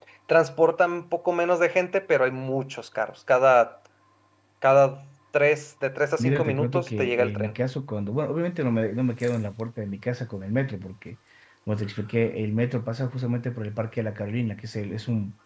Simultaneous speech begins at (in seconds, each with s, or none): 6.2 s